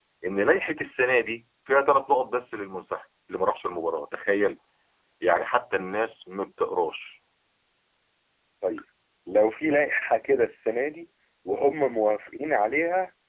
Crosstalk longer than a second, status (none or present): none